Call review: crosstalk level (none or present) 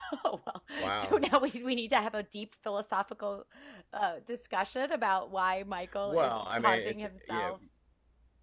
present